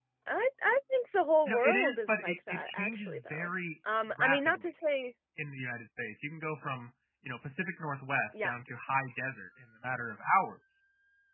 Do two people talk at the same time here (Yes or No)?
Yes